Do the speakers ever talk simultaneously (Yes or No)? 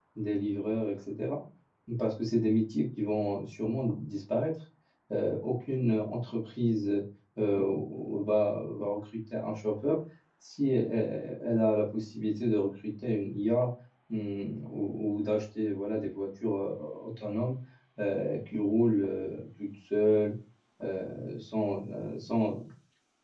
No